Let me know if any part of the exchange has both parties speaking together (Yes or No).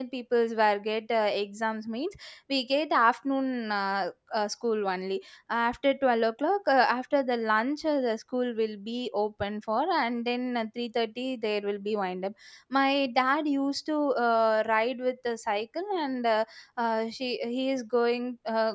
No